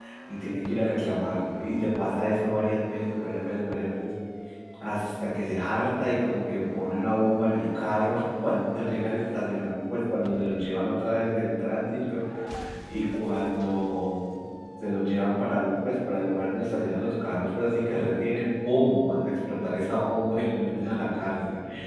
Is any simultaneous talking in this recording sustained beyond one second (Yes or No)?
No